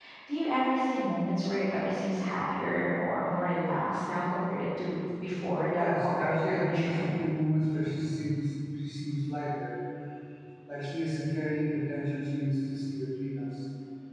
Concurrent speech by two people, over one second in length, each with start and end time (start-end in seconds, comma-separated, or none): 5.8-7.1